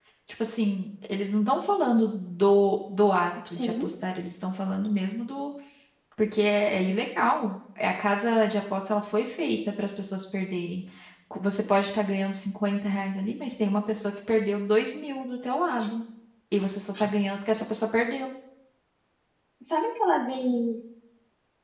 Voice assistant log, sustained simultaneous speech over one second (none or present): none